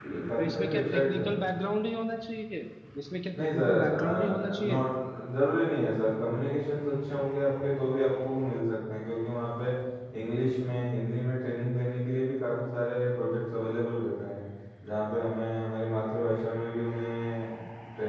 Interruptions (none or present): present